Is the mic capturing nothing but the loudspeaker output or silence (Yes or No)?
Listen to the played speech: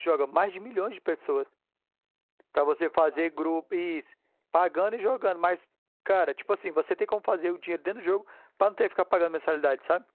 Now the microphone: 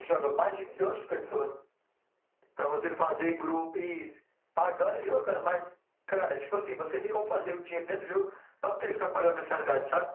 Yes